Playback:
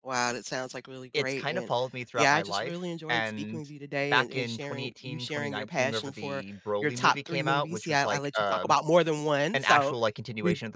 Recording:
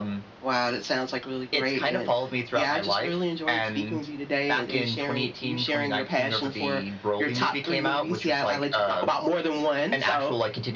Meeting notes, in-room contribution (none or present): none